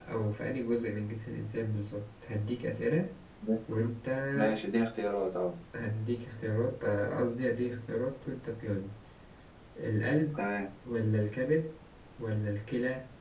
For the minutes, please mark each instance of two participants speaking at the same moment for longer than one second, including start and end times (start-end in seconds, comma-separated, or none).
none